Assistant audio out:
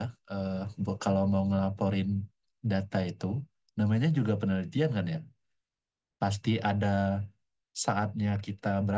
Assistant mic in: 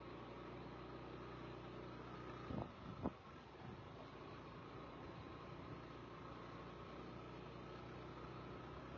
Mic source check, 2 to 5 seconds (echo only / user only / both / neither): neither